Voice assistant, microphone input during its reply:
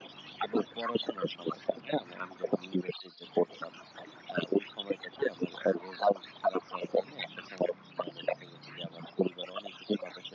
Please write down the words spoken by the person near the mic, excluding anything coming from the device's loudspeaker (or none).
none